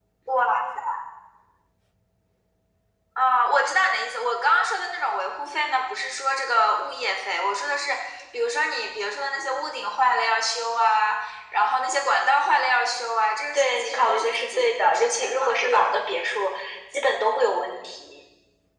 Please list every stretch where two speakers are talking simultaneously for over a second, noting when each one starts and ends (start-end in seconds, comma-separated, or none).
13.6-15.9